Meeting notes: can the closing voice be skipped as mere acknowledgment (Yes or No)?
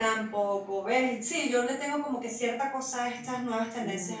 No